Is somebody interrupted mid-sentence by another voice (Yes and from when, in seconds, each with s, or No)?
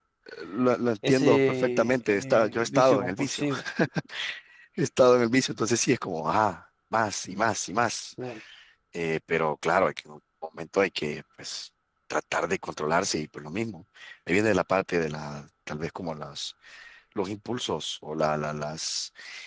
Yes, from 1.1 s